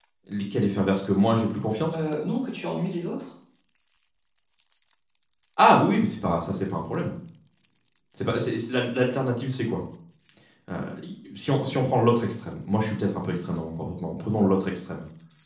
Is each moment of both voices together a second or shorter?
Yes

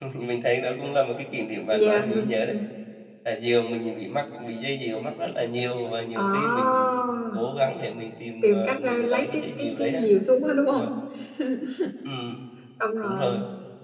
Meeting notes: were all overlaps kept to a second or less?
No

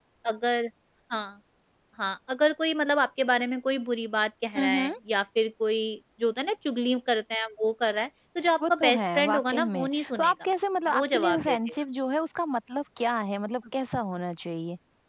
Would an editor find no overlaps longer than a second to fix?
No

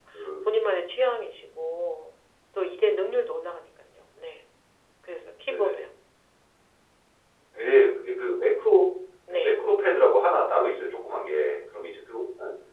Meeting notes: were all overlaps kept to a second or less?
Yes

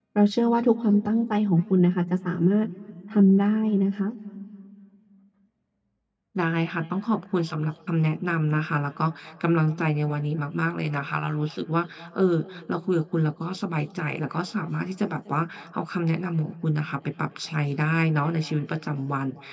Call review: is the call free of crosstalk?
Yes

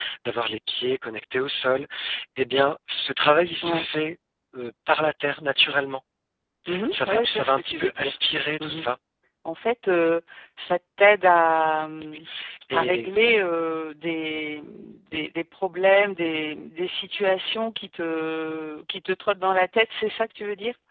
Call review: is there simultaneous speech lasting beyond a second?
Yes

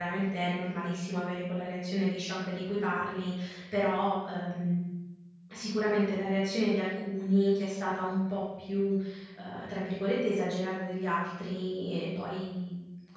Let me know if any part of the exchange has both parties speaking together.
No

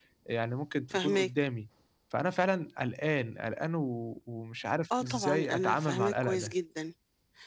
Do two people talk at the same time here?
Yes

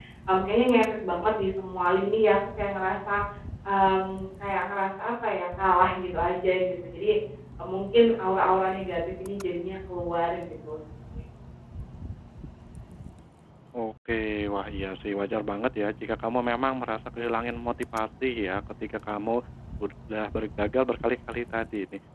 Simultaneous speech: No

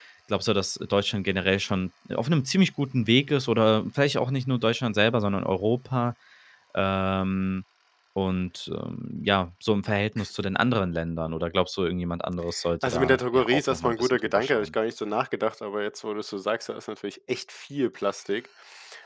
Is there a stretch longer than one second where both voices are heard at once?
Yes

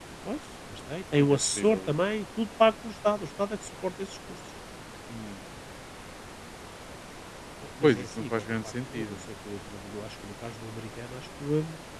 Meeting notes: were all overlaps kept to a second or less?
No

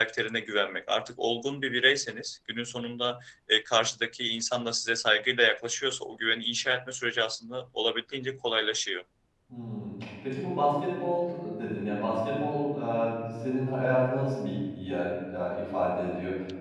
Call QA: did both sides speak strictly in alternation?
Yes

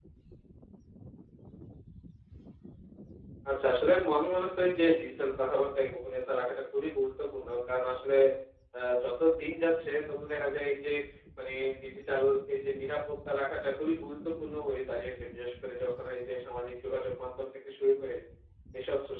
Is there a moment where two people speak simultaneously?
No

